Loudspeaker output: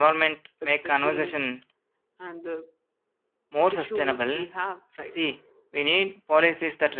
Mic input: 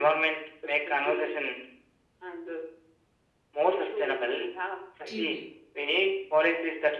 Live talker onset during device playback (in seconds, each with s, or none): 5.1 s